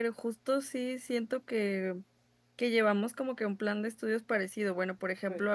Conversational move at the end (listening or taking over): listening